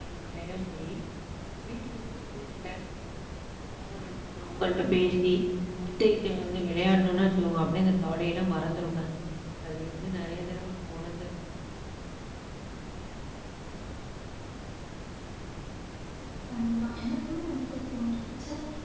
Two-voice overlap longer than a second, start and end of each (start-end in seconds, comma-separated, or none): none